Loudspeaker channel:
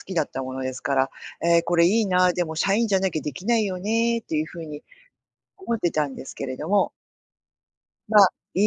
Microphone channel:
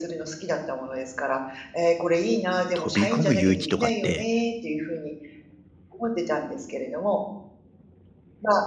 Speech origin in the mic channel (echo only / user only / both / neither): both